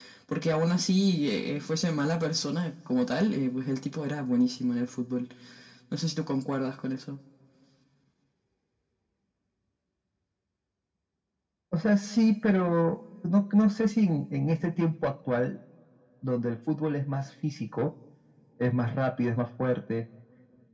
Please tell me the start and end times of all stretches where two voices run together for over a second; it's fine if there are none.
none

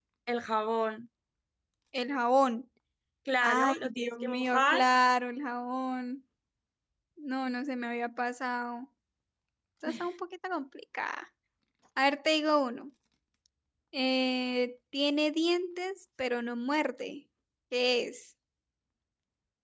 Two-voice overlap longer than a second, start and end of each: 3.4-4.9

